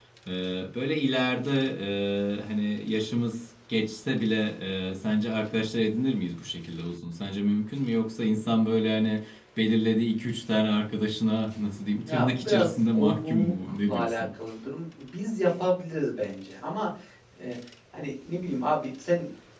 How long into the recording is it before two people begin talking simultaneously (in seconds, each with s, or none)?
12.0 s